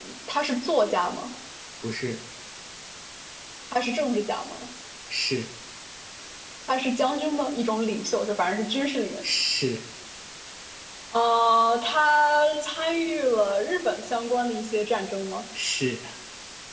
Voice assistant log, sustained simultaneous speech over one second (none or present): none